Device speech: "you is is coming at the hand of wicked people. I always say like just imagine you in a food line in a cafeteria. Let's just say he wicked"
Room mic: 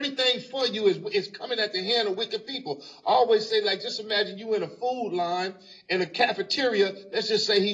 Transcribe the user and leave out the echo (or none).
none